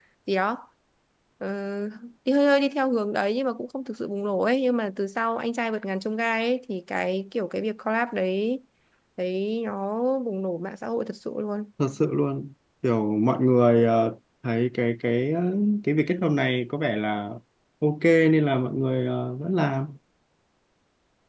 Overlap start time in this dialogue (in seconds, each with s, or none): none